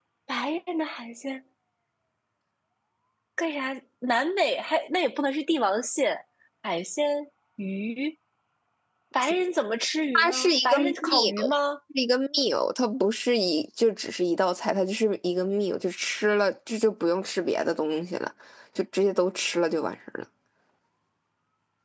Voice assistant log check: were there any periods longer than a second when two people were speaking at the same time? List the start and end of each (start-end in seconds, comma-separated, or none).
10.2-11.5